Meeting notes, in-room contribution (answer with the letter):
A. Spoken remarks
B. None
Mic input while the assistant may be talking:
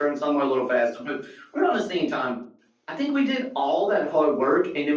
A